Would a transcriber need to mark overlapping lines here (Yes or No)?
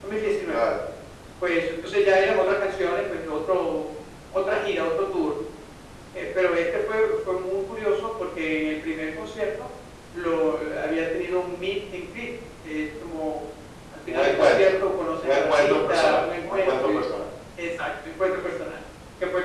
Yes